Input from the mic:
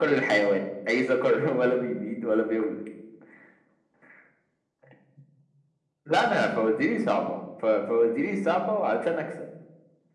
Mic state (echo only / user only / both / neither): echo only